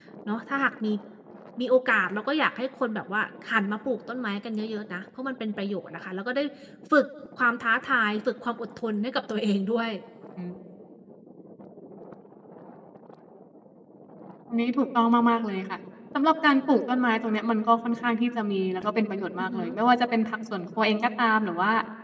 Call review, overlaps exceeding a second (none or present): none